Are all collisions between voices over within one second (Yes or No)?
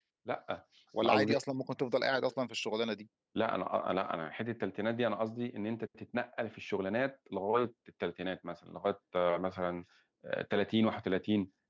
Yes